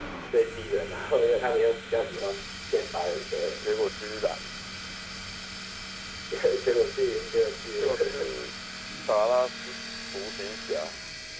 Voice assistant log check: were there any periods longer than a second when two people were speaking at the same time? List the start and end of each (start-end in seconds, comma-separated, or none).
none